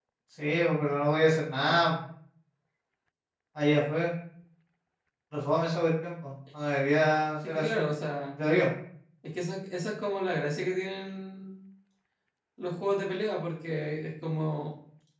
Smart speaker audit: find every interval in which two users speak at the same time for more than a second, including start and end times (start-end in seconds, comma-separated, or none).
none